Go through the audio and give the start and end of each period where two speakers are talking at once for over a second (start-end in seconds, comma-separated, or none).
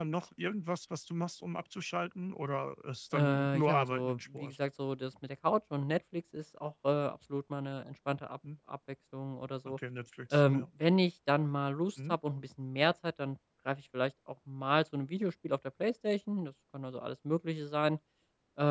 3.1-4.6